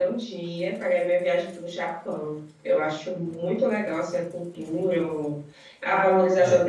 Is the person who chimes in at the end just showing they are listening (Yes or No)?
Yes